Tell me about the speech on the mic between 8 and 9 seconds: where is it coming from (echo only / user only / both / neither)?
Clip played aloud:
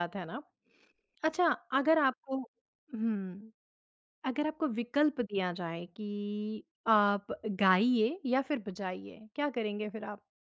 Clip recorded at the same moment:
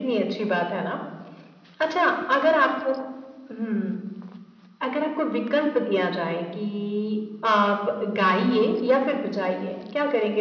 echo only